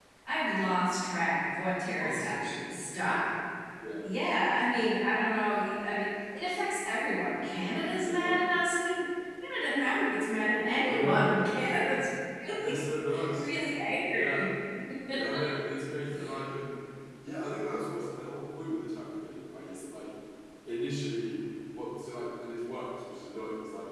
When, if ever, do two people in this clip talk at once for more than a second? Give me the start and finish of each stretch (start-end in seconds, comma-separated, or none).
none